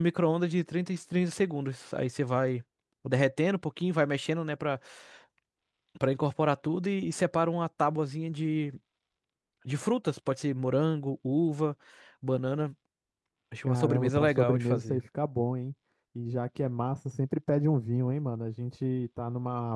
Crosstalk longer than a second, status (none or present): present